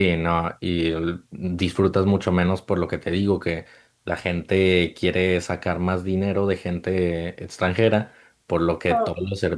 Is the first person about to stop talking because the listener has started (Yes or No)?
No